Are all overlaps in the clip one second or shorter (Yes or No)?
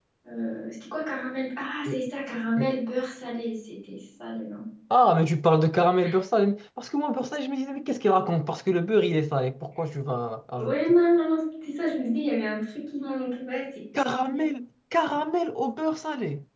Yes